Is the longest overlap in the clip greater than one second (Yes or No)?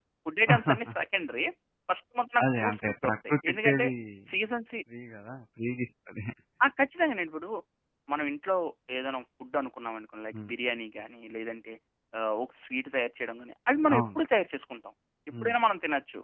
Yes